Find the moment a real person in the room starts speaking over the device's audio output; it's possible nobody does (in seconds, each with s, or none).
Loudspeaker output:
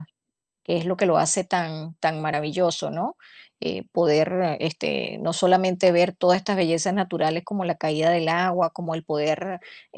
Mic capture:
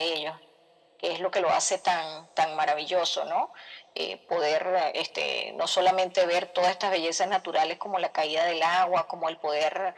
none